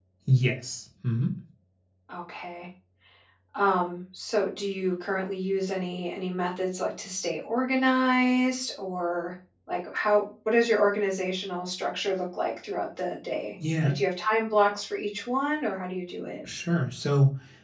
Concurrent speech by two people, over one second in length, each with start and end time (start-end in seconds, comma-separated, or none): none